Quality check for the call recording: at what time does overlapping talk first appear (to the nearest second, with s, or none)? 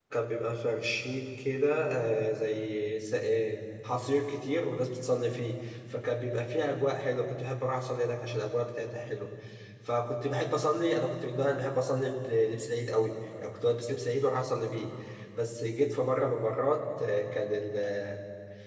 none